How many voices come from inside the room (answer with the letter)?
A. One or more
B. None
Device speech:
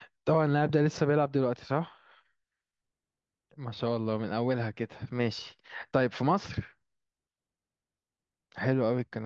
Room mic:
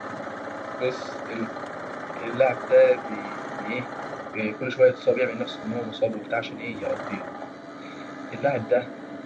A